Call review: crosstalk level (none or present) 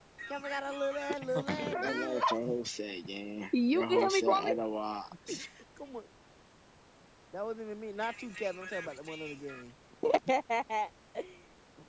present